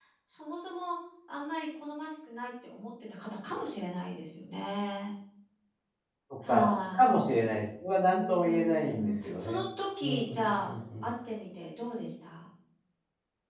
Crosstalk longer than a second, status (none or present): present